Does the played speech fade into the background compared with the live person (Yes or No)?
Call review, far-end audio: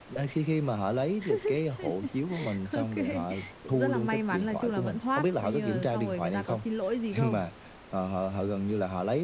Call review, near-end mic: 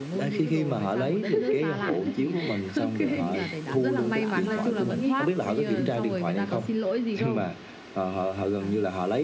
No